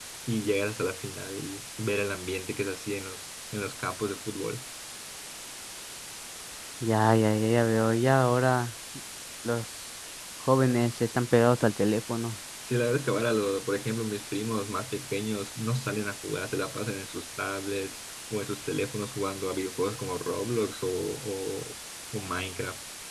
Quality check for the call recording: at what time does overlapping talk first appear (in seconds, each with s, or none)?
none